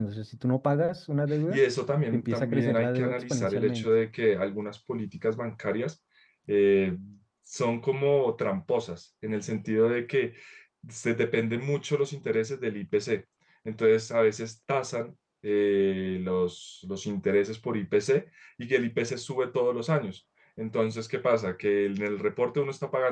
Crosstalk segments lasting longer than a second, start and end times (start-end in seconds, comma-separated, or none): 2.1-3.9